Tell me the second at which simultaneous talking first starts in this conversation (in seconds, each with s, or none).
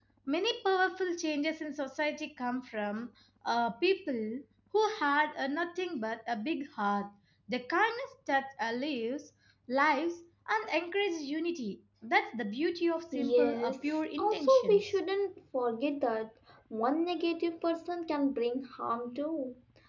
13.1 s